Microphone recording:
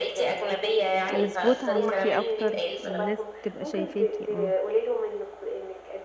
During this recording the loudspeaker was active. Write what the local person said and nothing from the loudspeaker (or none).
الspot عليكِ أكتر والناس تبقى شايفاكِ، آه،